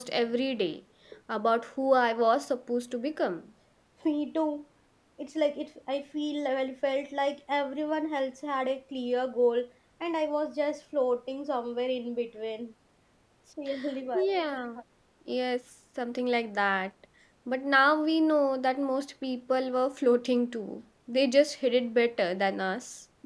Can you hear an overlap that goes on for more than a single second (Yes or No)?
No